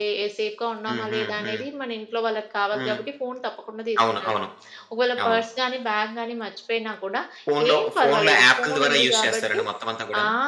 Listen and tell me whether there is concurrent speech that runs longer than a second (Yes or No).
Yes